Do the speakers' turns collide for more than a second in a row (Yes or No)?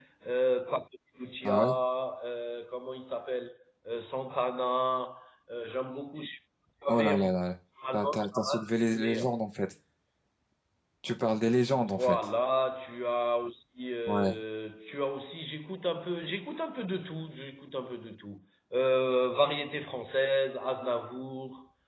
Yes